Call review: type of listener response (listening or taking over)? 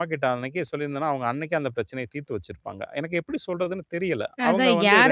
taking over